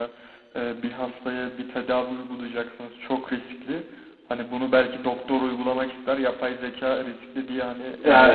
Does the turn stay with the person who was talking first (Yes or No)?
No